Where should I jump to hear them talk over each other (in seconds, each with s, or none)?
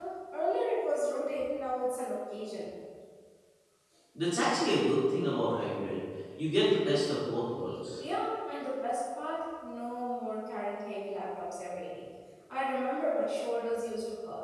none